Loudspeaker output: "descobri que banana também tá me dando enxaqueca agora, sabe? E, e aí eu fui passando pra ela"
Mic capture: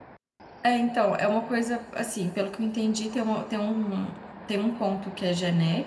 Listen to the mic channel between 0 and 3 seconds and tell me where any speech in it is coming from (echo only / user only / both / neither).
user only